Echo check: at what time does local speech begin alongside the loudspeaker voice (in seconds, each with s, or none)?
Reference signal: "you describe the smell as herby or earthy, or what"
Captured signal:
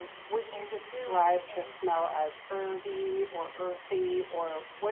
0.5 s